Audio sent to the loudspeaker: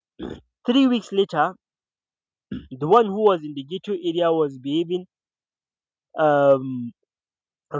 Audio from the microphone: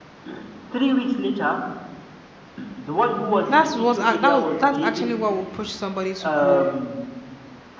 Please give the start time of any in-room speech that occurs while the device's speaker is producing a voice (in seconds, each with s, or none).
3.5 s